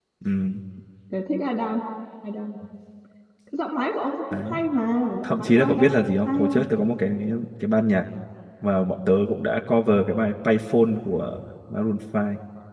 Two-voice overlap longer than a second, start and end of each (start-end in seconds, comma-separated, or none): 5.2-6.5